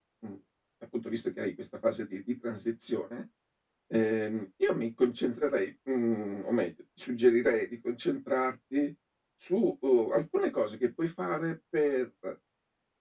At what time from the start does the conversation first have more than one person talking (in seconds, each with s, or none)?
none